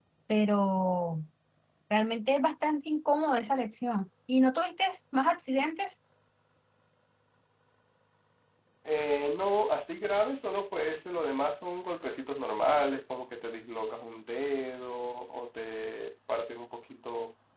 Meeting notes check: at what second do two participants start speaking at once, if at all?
none

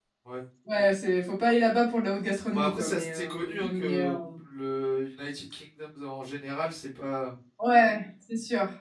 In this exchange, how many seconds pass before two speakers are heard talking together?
2.5 s

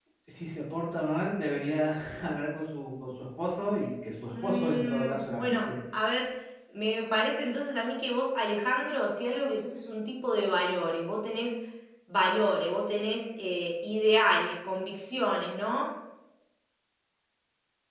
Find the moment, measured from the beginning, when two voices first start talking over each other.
4.3 s

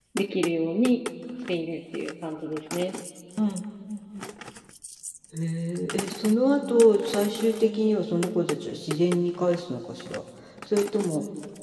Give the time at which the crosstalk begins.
none

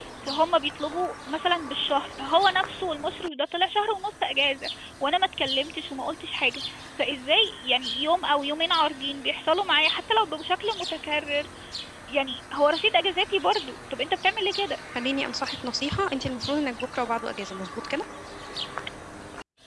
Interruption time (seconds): none

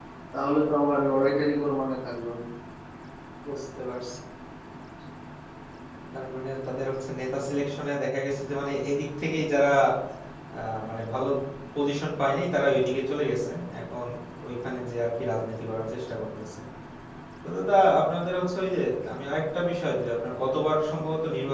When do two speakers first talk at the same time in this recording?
none

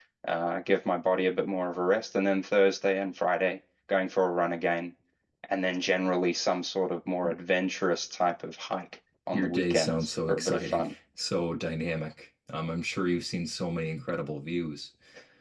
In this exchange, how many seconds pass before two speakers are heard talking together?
9.3 s

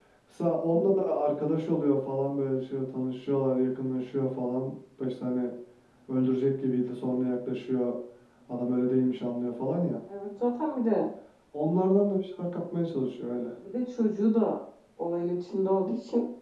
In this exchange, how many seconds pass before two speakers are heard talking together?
none

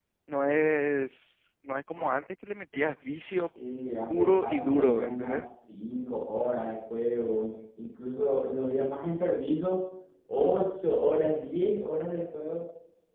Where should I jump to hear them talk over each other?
4.1 s

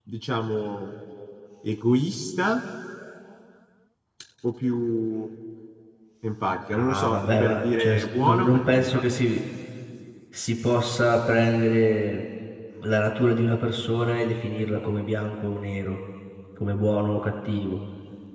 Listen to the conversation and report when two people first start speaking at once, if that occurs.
6.7 s

